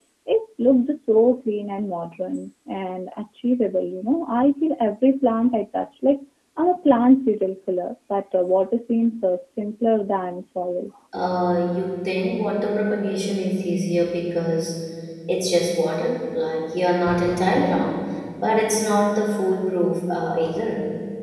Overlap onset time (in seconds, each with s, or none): none